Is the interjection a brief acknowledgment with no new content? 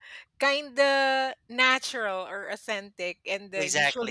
Yes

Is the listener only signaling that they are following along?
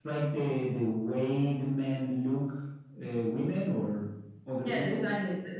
No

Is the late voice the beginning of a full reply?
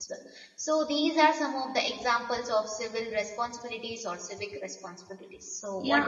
Yes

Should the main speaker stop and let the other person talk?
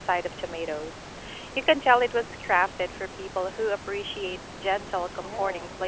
Yes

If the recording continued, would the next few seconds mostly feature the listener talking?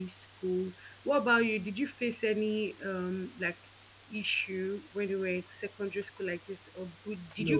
Yes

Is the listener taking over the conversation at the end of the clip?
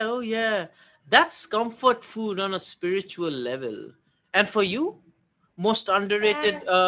No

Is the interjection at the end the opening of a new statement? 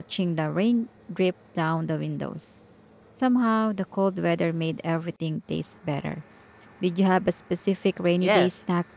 Yes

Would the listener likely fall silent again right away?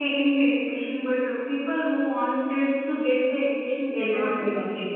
No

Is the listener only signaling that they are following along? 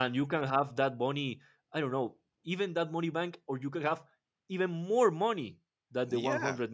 No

